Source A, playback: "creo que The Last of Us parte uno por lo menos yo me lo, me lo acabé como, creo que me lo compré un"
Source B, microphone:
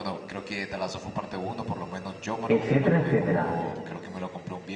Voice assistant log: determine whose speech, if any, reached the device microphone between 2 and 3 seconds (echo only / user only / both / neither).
both